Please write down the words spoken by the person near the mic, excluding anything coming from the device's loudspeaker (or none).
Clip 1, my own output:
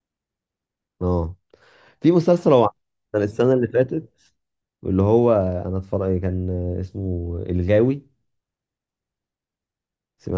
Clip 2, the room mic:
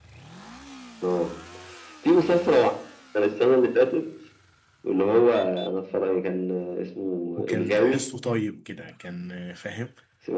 وكان تحسه طيب كده كان آه، فاهم